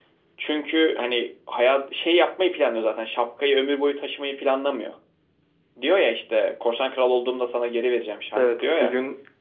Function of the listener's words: taking over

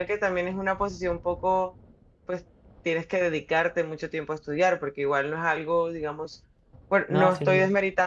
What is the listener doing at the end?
listening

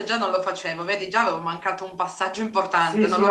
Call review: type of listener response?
taking over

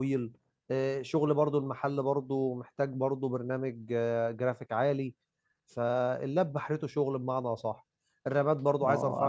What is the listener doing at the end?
taking over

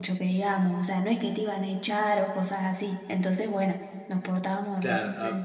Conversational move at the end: taking over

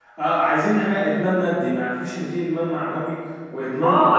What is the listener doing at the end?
taking over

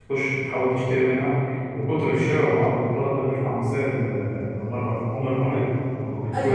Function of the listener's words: taking over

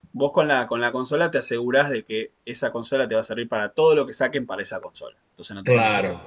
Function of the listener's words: taking over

